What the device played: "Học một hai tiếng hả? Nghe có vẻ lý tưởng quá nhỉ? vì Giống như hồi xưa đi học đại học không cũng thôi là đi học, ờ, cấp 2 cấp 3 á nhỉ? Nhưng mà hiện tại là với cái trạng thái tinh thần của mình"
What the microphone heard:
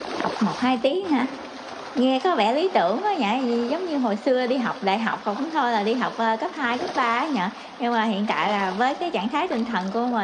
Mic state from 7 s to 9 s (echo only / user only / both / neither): echo only